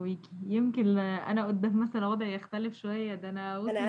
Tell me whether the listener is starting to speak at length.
Yes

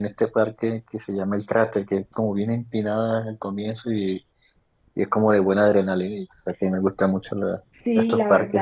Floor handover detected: Yes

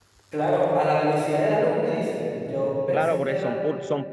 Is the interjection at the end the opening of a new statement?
Yes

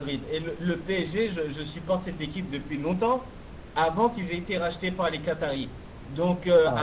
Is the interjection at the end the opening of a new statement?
No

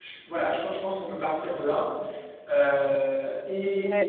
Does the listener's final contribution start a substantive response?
Yes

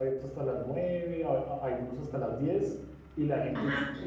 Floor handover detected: No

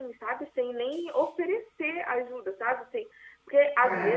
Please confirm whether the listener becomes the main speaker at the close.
No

